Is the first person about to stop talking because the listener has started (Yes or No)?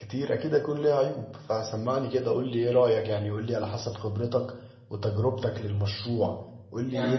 No